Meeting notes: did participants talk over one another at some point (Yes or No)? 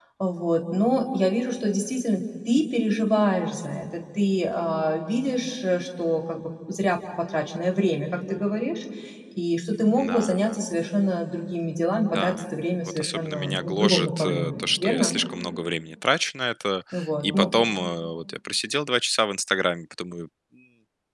Yes